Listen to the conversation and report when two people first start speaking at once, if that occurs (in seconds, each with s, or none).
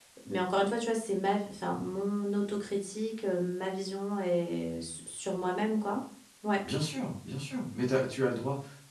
none